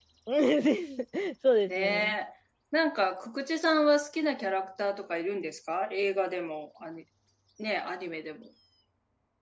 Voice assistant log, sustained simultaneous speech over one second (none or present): none